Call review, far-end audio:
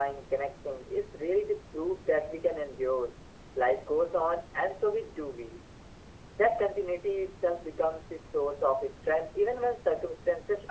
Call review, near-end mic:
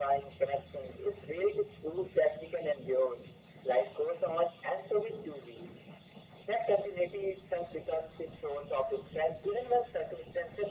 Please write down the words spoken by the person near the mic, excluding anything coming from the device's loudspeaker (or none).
none